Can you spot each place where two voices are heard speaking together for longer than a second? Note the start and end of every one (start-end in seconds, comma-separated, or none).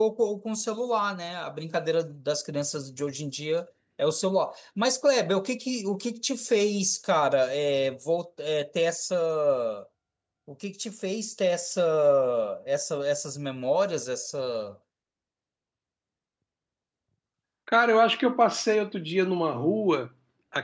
none